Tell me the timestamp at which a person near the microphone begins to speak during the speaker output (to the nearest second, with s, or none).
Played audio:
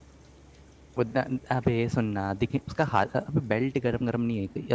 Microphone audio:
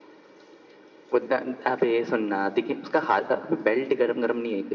none